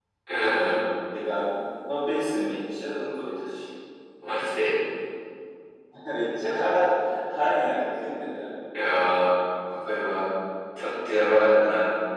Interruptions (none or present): none